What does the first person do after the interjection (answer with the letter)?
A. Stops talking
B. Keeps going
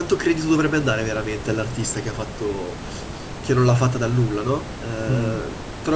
B